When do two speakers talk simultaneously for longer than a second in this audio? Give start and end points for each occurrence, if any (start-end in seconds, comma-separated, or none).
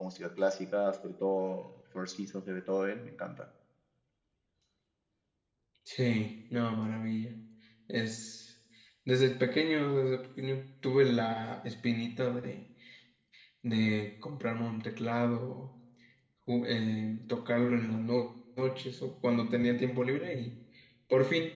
none